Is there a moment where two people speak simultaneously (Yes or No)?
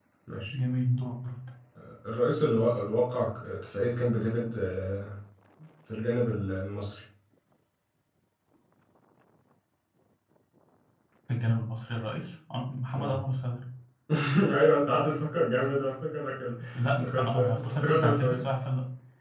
Yes